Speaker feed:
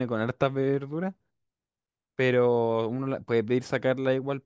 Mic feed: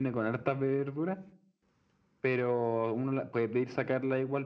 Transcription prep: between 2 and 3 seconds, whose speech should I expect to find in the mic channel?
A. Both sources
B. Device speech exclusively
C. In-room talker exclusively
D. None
B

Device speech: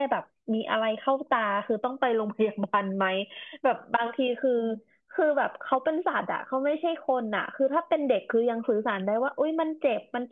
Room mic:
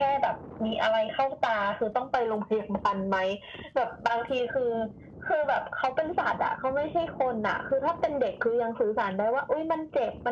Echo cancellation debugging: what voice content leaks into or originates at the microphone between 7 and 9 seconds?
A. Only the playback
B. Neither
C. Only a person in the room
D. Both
A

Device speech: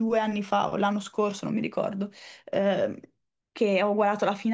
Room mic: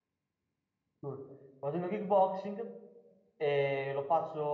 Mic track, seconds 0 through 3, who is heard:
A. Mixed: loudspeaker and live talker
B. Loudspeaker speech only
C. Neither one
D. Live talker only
D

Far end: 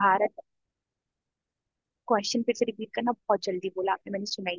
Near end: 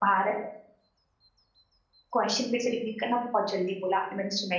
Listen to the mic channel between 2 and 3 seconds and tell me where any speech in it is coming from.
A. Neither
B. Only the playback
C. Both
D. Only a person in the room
B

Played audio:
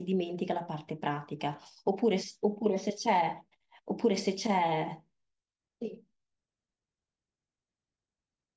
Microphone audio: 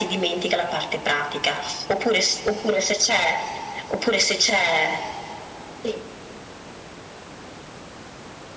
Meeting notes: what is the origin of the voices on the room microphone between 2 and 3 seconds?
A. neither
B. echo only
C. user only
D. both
B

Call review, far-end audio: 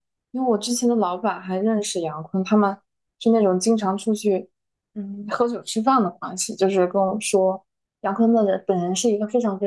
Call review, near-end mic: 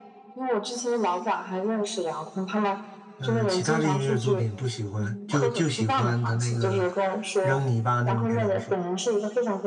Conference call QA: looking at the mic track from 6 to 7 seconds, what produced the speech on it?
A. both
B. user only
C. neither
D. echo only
A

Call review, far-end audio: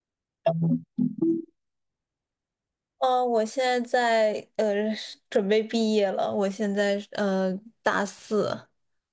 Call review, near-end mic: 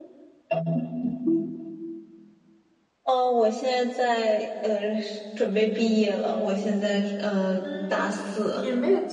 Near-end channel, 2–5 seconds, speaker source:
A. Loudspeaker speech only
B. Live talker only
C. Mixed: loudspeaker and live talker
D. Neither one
A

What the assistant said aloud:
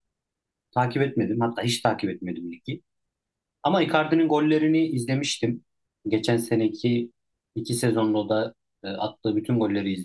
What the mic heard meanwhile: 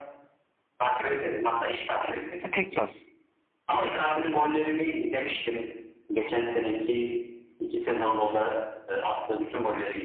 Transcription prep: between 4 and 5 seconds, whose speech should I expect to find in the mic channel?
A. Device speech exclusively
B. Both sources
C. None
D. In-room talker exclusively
A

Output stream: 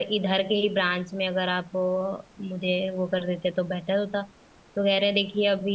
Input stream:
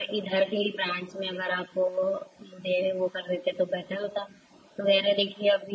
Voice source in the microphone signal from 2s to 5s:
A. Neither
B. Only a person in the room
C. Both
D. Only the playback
D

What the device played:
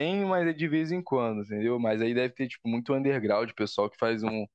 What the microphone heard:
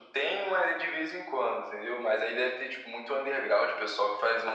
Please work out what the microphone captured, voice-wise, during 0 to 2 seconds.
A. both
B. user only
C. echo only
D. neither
C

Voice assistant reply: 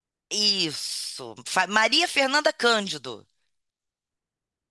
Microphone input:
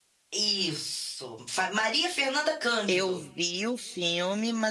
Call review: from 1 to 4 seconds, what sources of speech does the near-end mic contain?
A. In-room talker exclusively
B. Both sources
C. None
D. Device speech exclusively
B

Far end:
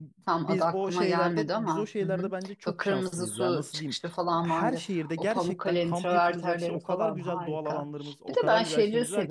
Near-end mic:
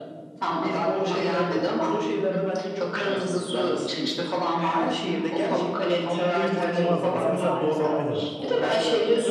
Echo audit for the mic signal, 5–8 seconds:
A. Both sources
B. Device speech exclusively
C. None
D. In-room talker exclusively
A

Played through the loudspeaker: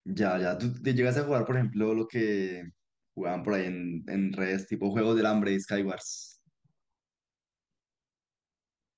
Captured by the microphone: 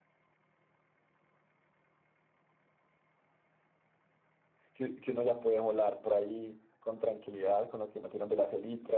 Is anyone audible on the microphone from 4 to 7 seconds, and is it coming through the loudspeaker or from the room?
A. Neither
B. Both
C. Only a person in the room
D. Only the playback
C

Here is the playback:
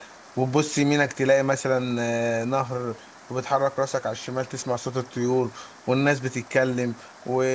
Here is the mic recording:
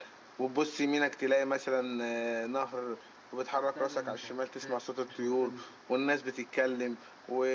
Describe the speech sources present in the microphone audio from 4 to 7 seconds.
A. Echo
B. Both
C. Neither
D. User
B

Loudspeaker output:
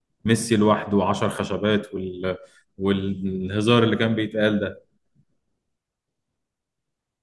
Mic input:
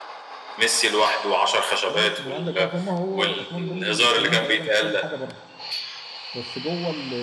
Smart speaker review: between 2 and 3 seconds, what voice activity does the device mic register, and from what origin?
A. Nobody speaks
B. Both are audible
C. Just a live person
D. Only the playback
B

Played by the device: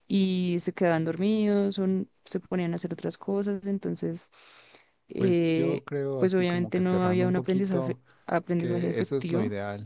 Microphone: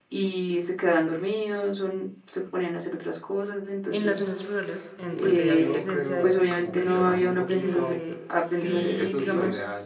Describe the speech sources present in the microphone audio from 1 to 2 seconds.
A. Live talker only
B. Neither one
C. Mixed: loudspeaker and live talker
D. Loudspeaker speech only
D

